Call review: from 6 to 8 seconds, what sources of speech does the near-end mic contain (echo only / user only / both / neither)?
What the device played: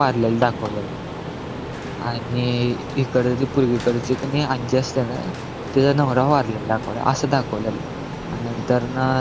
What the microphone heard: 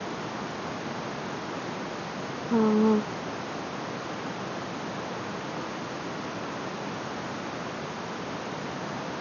neither